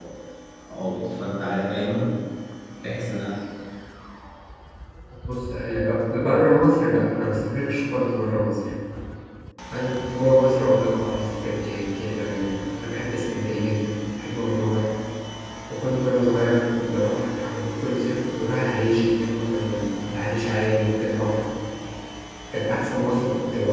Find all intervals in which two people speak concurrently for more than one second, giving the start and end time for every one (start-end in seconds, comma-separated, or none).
none